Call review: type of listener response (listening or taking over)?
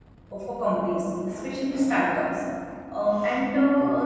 listening